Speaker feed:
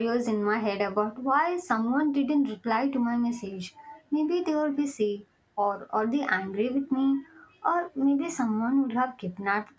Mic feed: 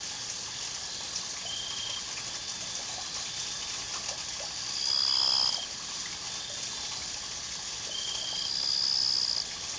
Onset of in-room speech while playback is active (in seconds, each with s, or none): none